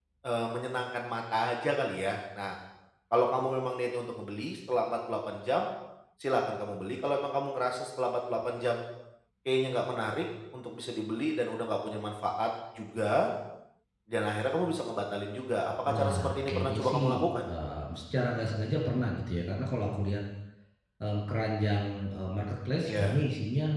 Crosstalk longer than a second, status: present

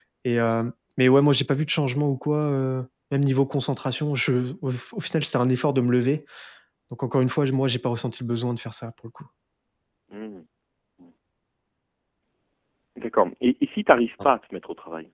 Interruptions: none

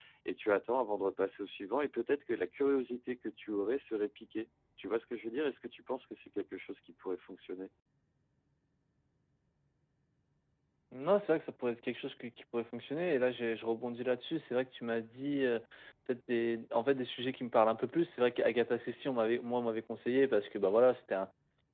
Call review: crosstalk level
none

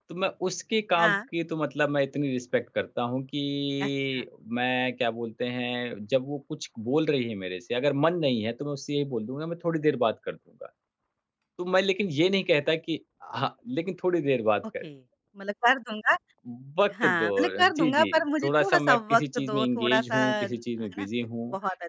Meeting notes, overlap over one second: present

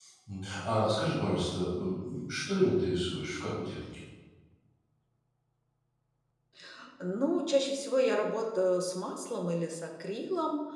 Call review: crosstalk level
none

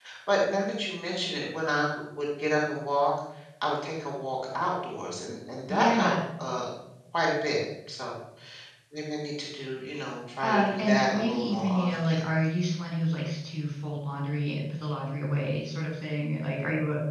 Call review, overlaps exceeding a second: present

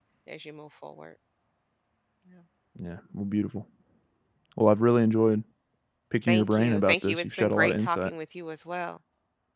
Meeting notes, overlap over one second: present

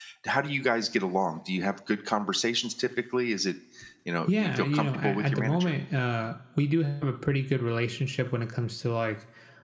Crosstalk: present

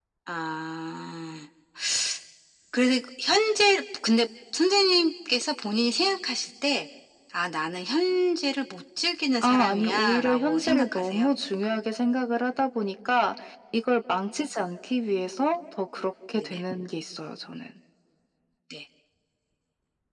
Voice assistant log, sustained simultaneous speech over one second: present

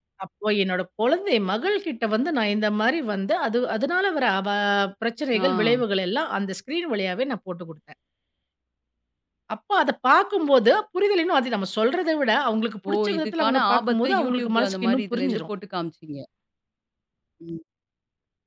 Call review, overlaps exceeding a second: present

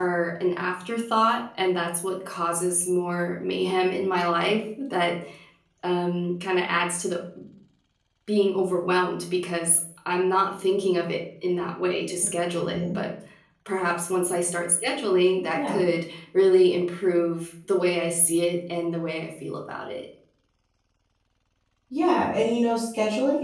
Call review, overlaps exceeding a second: none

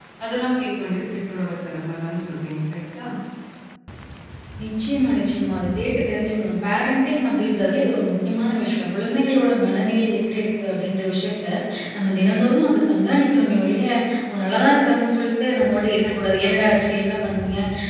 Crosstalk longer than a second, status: none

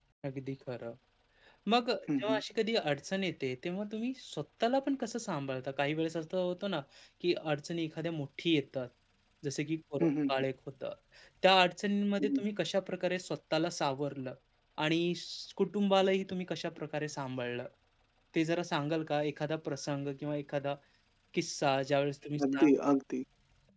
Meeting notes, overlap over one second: none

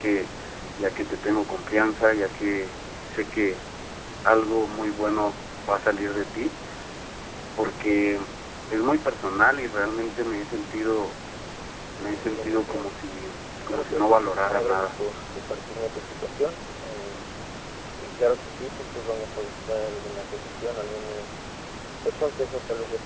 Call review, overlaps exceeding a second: present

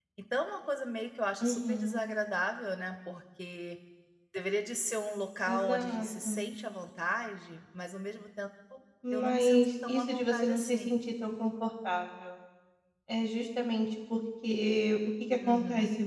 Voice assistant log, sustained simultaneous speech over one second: present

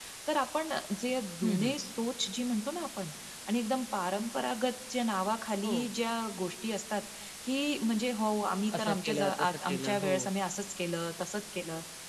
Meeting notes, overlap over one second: present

